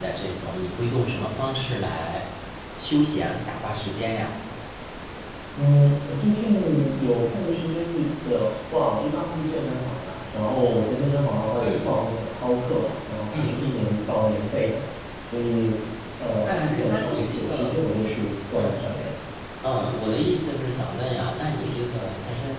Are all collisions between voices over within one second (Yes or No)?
No